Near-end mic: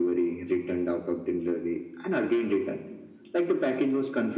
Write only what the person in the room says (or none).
none